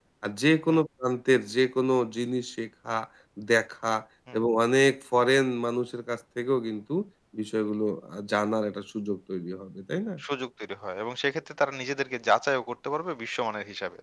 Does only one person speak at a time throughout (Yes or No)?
Yes